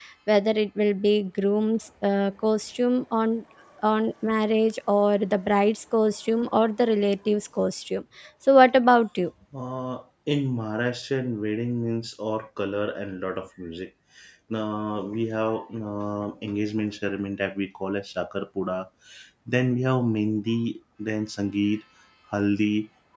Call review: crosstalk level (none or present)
none